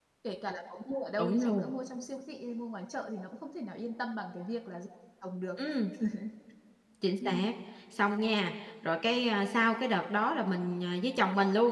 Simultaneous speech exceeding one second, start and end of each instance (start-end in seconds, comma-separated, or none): none